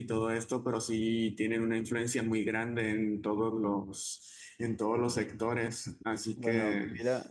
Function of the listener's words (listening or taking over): taking over